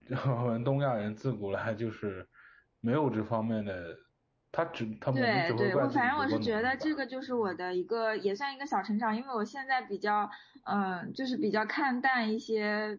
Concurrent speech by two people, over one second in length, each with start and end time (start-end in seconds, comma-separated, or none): 5.1-7.0